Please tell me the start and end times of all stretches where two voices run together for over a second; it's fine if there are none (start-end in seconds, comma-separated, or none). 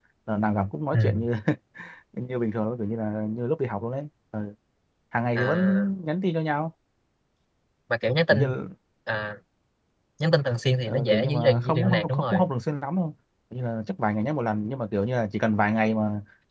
10.9-12.4